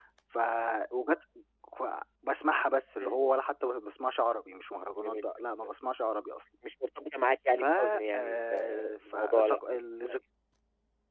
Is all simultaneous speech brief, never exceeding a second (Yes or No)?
No